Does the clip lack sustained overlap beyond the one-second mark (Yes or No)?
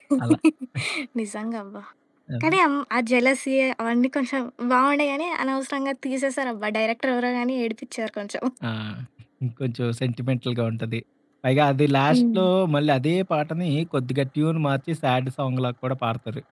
Yes